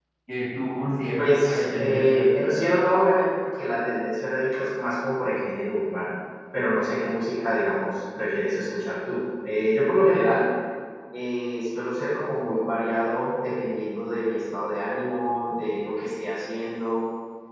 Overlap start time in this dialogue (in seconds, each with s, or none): 1.2 s